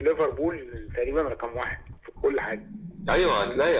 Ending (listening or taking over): taking over